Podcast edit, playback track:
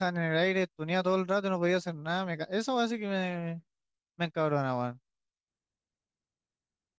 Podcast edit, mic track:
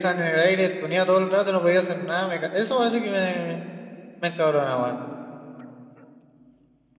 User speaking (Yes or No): No